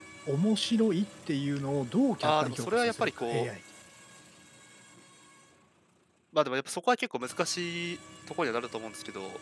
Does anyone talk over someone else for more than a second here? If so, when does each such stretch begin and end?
2.2-3.5

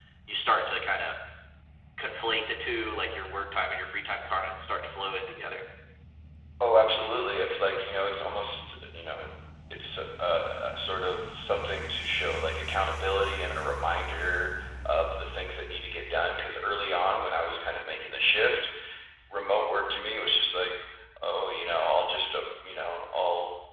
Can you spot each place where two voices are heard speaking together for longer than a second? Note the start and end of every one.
none

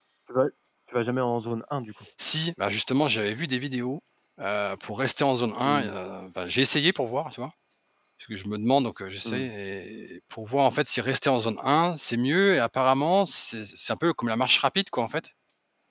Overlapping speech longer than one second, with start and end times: none

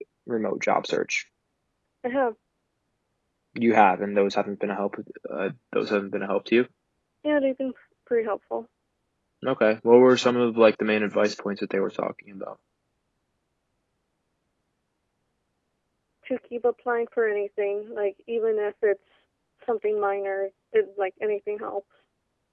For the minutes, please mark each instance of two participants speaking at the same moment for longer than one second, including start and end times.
none

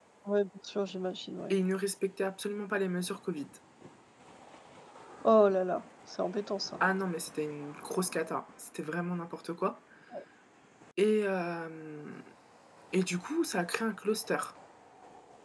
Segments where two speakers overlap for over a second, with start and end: none

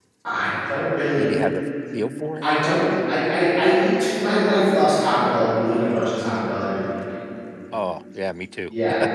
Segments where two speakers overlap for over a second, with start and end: none

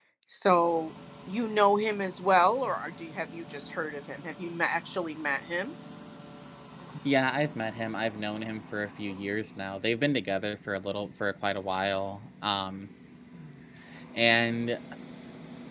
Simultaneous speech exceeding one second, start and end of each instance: none

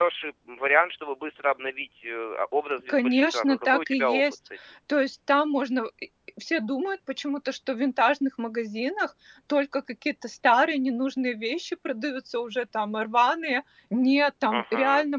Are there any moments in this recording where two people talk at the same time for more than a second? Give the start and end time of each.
2.9-4.2

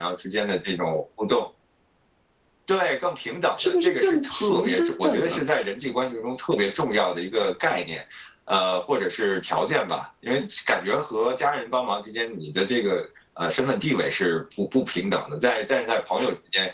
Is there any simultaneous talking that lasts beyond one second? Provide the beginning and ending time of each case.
3.6-5.4

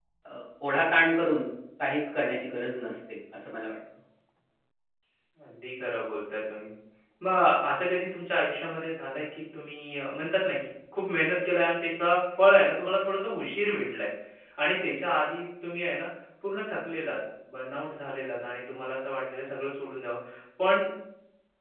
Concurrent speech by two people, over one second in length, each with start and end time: none

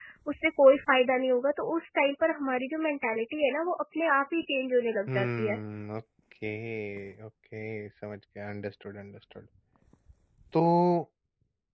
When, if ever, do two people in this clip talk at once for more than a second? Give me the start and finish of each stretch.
none

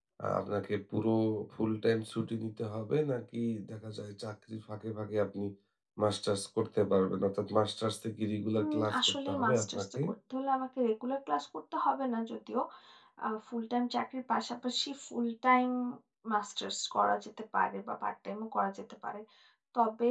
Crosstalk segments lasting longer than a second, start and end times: 8.6-9.8

